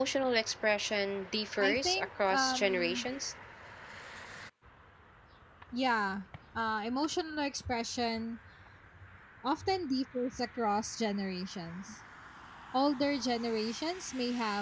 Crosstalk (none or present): present